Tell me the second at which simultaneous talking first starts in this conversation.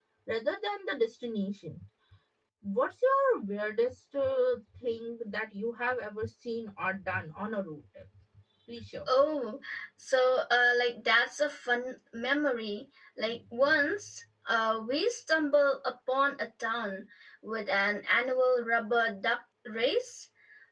none

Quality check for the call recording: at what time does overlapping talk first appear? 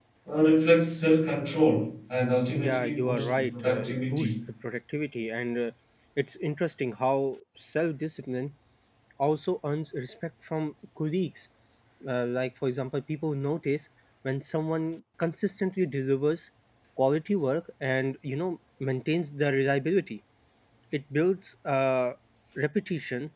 2.5 s

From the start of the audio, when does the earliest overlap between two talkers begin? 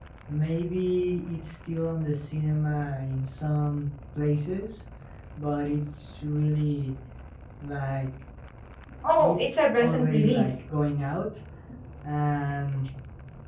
9.2 s

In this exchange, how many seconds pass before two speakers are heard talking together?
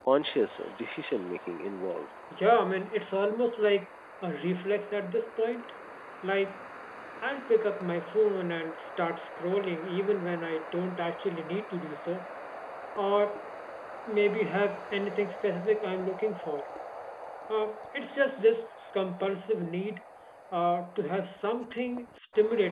none

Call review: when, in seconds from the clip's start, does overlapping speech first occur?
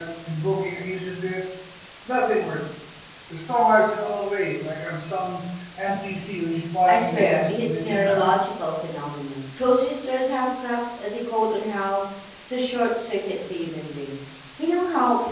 6.9 s

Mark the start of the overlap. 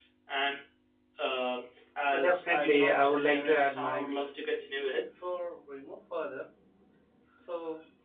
2.1 s

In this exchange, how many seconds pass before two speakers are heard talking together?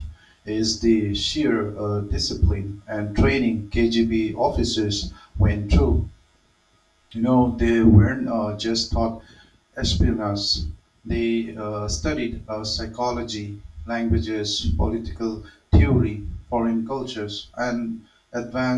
none

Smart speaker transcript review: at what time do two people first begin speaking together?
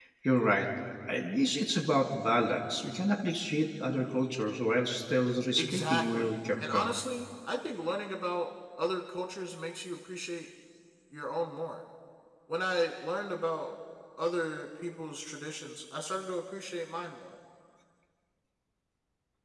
5.6 s

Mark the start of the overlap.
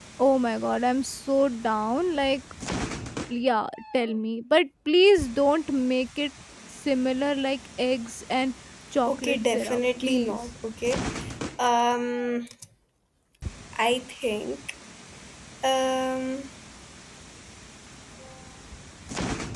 9.1 s

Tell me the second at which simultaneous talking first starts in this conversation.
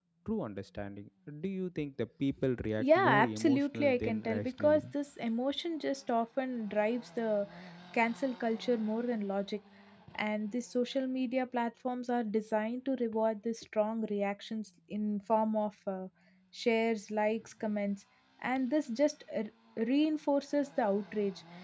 2.8 s

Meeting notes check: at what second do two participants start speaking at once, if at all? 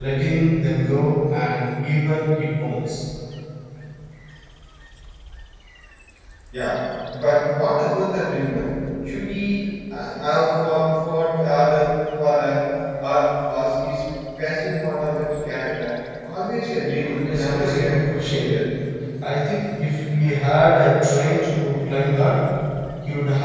17.2 s

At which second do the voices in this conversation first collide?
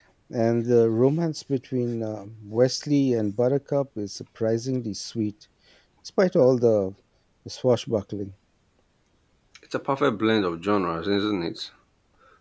none

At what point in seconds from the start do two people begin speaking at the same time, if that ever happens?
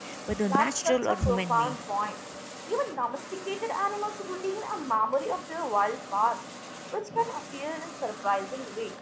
0.5 s

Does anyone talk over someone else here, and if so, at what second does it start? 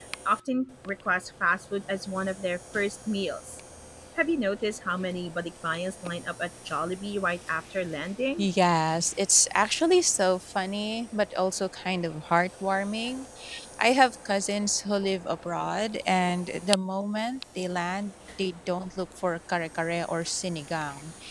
none

